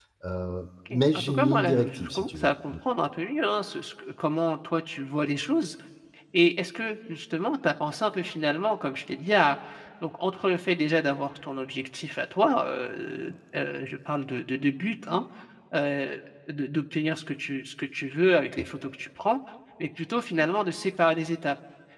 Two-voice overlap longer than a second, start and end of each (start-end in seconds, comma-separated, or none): 0.9-2.7